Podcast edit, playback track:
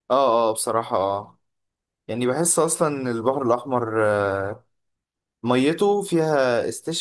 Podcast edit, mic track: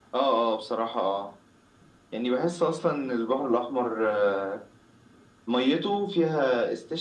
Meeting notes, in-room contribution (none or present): none